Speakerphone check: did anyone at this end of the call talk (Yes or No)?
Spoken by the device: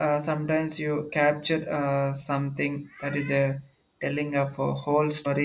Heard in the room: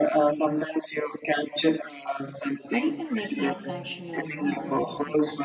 Yes